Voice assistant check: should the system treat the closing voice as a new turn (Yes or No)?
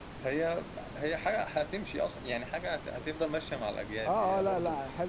Yes